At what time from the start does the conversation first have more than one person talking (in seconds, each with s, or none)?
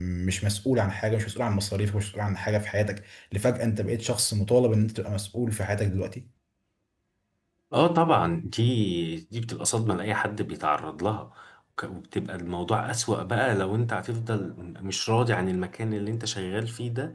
none